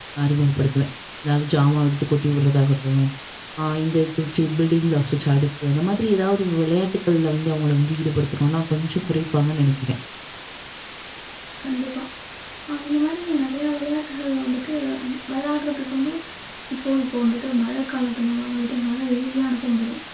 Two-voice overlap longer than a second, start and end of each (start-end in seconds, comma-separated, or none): none